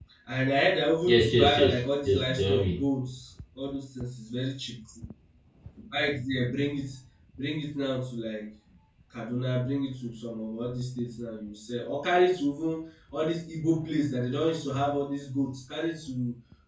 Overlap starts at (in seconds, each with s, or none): 1.1 s